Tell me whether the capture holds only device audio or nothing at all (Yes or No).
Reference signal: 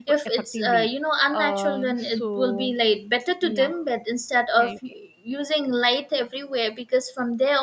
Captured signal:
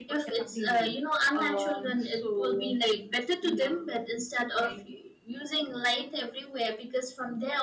Yes